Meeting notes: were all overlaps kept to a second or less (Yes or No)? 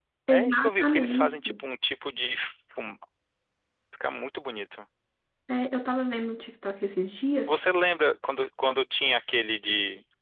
No